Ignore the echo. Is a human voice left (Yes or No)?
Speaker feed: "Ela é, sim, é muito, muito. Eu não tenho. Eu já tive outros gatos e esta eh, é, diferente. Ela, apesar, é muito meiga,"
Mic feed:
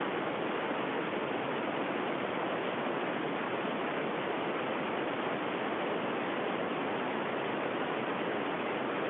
No